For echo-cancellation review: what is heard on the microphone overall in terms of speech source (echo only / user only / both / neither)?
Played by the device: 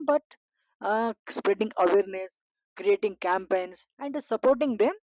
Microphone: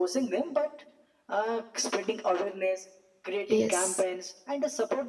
both